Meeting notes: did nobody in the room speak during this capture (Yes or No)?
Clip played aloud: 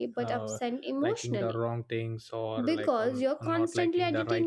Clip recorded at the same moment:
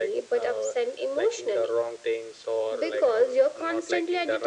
Yes